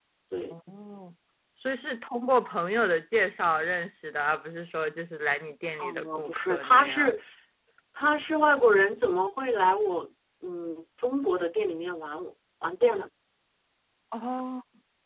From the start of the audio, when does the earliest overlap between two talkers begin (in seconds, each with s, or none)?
5.8 s